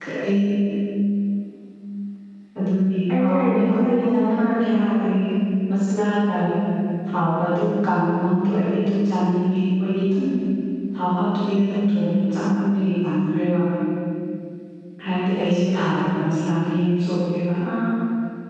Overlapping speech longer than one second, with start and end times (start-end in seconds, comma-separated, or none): 3.2-5.1